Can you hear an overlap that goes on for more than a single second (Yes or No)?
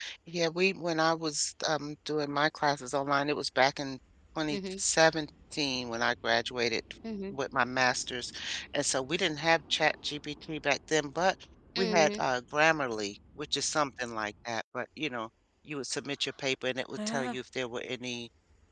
No